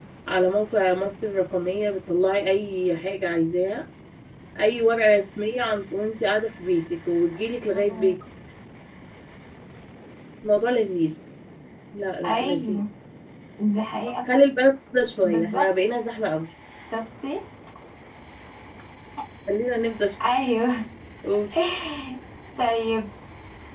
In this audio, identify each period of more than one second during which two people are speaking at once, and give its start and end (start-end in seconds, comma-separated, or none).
none